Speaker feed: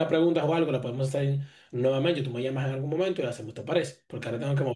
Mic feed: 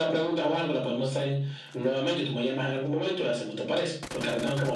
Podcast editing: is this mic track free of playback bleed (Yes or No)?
No